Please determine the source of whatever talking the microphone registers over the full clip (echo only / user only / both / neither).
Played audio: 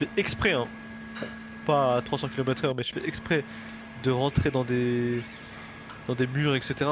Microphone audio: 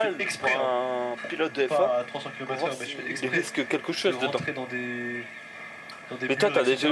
both